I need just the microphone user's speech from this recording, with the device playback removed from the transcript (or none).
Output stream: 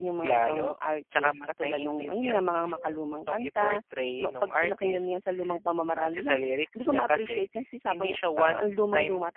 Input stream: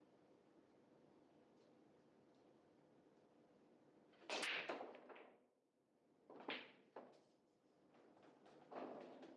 none